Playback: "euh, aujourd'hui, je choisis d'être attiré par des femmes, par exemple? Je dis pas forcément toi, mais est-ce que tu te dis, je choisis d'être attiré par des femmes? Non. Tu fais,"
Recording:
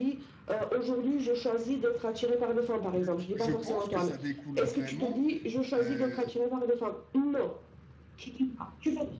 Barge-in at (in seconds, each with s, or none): 2.9 s